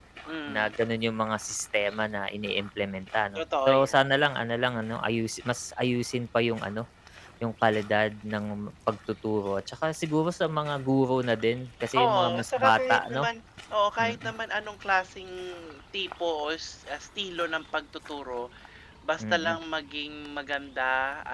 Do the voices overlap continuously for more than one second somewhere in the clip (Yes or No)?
Yes